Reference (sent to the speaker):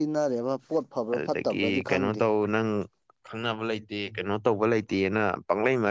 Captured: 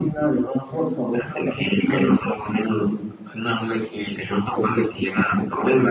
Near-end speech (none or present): none